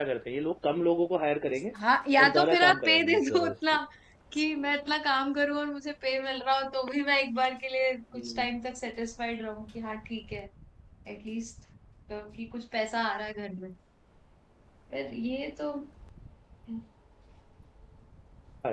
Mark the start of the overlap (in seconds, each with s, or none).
2.2 s